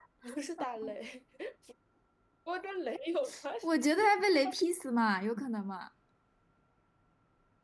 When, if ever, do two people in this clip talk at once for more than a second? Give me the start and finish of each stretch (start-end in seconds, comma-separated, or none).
none